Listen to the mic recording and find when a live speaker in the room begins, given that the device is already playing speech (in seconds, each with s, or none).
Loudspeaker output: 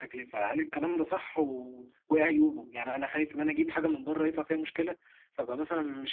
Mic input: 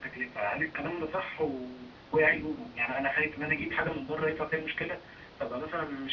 none